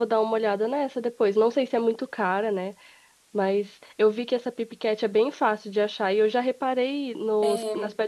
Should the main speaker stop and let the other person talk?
No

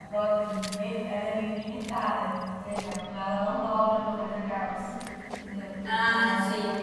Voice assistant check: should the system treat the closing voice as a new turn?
No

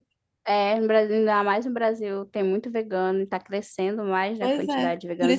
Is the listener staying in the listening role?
No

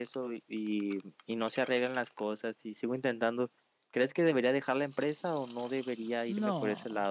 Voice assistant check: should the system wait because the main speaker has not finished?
No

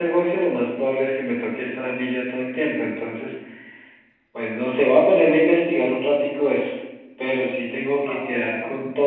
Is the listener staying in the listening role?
Yes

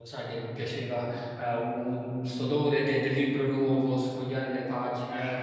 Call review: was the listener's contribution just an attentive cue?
Yes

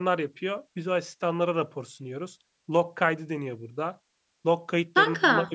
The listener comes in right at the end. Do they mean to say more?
No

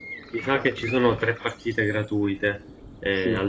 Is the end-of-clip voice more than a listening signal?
Yes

